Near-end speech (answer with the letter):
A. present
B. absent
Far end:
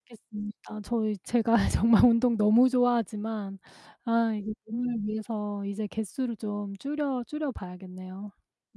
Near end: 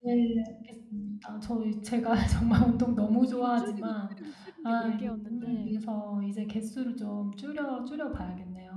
A